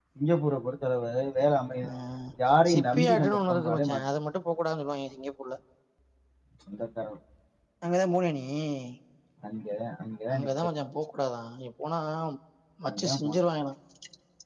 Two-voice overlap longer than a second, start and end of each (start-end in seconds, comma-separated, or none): 2.7-4.0